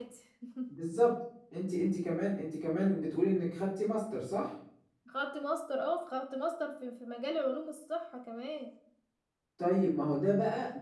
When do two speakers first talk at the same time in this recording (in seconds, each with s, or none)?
none